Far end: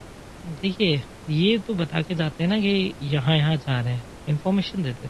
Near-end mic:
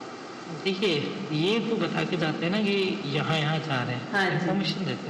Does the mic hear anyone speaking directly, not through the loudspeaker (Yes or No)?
Yes